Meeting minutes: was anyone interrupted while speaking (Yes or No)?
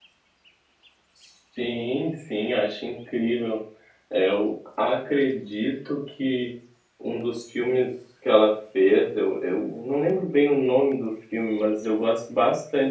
No